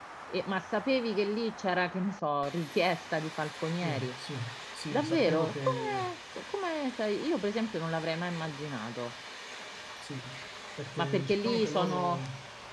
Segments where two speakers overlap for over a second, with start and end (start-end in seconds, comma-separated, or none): 4.9-6.1, 11.0-12.2